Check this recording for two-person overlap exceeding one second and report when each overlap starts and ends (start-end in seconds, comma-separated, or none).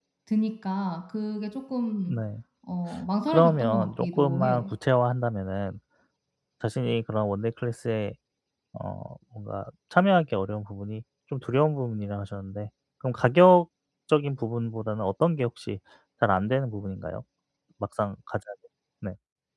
3.3-4.6